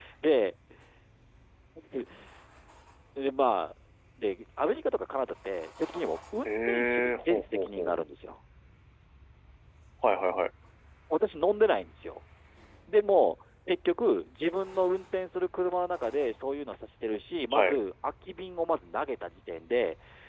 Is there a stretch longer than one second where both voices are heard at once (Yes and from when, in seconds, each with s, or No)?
Yes, from 6.5 s